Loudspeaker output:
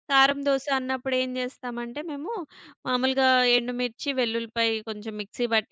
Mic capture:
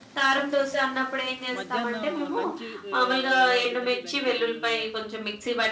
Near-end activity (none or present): present